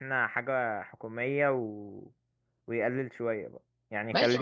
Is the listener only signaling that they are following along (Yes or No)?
No